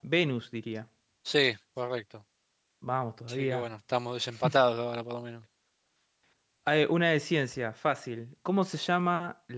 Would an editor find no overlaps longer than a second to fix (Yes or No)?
Yes